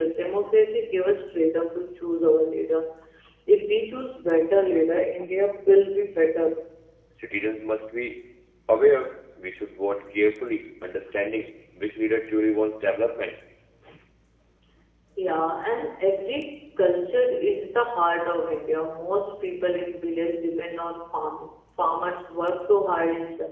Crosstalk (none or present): none